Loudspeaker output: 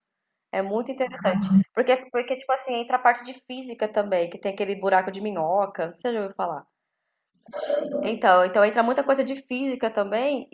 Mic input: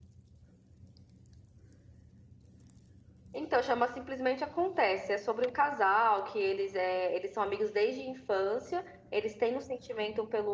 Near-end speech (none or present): present